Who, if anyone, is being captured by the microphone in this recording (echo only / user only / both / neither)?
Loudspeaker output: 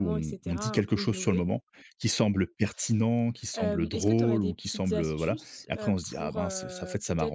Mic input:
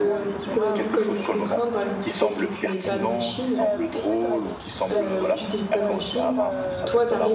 both